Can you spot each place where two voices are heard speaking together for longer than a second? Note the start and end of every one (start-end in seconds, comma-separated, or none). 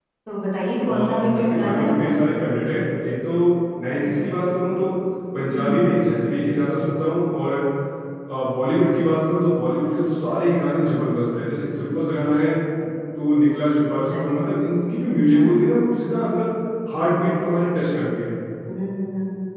0.8-2.1